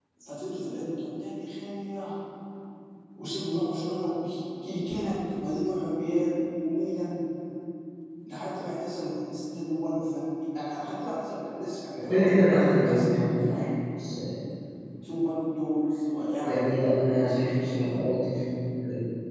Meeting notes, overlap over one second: present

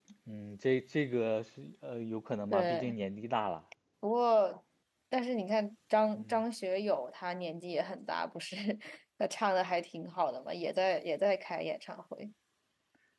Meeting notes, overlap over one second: none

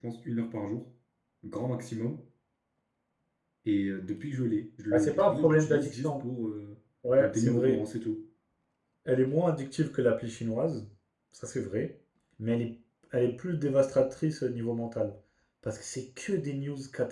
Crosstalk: present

